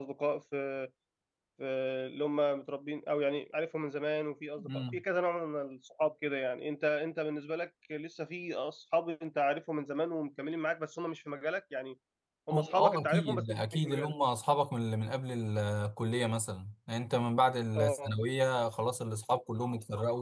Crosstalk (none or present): present